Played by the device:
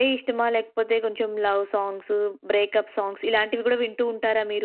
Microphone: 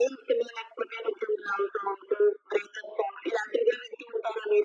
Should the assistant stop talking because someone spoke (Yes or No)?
No